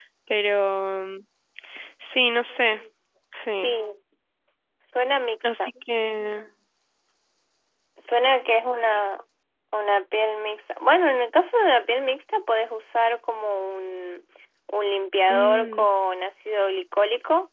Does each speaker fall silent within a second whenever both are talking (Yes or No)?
Yes